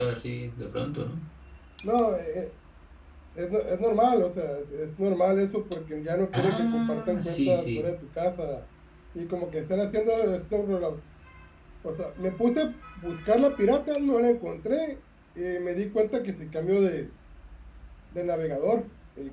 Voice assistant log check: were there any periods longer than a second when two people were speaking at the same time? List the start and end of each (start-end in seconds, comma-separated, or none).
6.3-7.8